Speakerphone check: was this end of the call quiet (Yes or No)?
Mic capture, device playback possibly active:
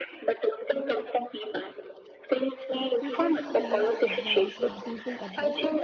No